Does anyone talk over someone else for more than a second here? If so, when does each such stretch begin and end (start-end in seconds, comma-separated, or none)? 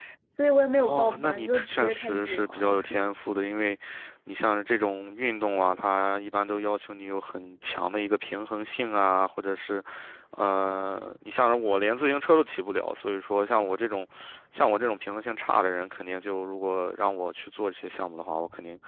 0.8-2.8